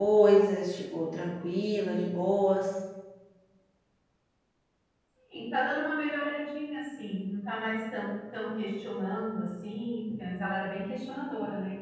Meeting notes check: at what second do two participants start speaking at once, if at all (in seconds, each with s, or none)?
none